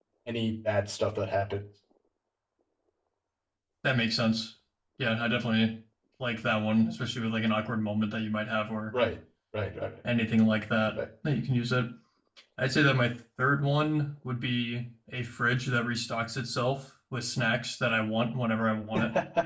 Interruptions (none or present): none